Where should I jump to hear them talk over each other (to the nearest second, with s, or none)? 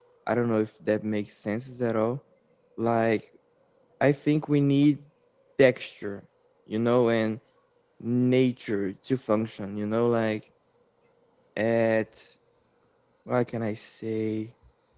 none